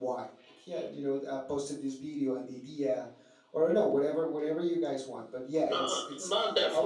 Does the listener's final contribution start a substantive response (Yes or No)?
Yes